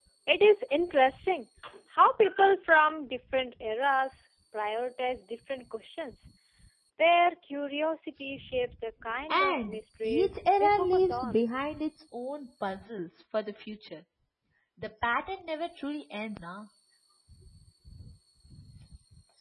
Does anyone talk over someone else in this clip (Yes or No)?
Yes